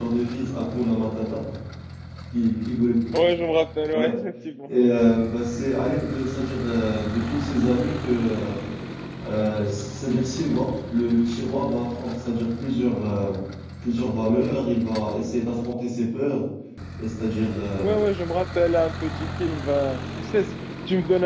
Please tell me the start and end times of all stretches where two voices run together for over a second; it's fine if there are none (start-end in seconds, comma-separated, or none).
none